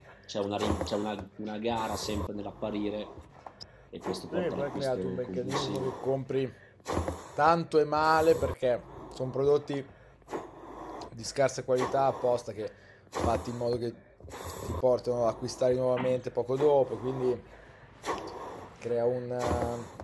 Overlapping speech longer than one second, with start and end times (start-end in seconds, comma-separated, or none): 4.3-5.9